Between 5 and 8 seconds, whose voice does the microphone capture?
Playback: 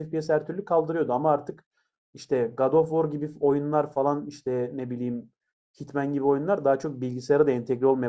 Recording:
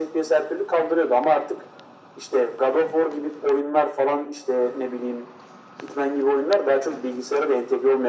echo only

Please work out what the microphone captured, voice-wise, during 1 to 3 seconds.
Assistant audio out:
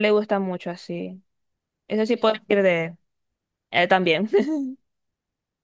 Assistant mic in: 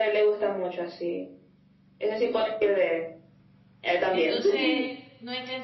echo only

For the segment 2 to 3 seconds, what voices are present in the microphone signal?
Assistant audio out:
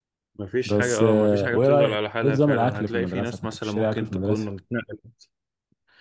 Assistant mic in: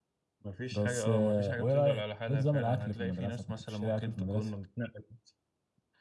echo only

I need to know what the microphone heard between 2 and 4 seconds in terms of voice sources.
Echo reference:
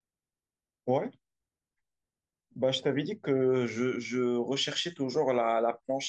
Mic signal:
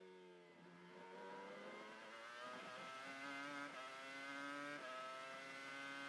neither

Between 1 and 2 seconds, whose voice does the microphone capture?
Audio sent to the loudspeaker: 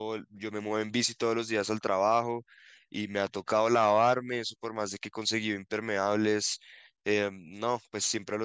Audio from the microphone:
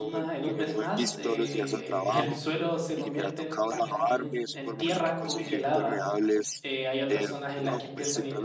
both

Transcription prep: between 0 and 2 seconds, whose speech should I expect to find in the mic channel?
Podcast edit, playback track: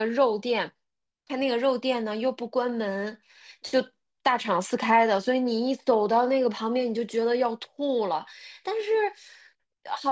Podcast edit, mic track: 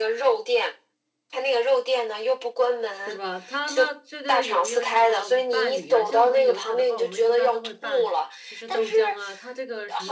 echo only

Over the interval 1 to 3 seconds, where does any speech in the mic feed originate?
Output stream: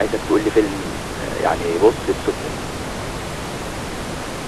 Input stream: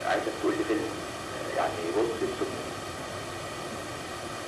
echo only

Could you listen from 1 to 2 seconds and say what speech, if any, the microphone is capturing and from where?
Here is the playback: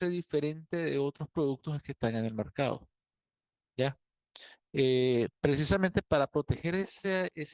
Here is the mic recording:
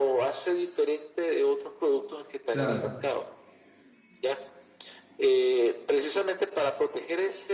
echo only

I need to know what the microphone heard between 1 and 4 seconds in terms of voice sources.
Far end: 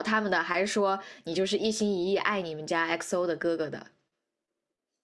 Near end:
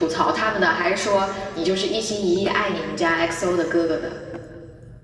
echo only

